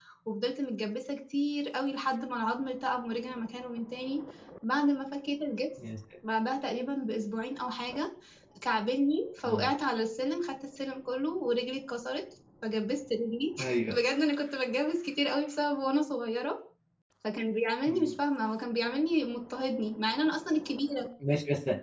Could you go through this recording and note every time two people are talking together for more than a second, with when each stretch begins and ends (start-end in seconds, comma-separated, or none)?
none